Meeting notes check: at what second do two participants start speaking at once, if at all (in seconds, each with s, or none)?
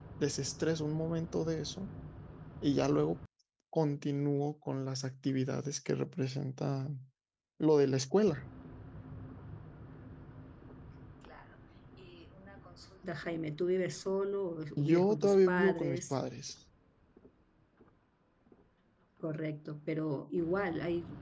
14.8 s